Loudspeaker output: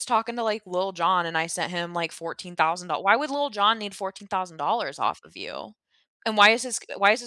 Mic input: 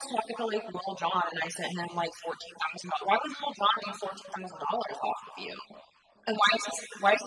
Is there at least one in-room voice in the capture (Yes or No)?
No